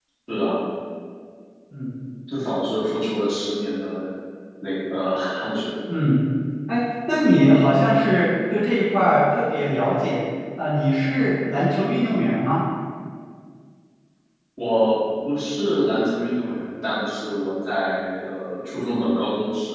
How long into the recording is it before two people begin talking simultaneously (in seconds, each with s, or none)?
none